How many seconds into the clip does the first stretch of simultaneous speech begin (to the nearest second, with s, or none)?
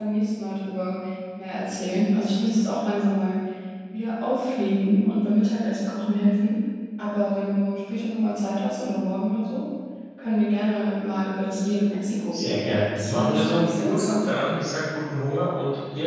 12 s